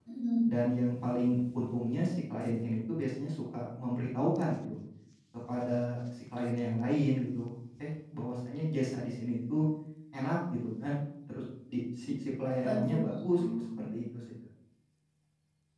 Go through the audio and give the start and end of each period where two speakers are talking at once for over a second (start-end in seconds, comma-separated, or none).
12.6-13.9